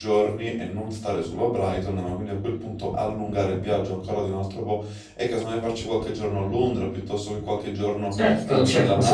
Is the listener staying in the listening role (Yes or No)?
No